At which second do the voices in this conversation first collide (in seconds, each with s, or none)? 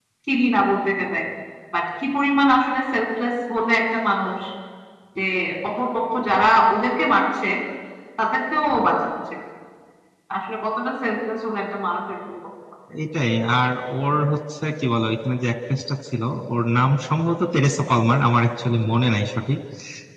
none